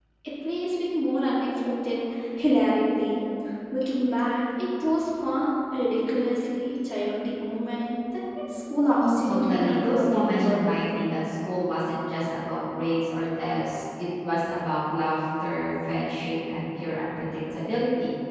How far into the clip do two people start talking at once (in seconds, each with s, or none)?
9.0 s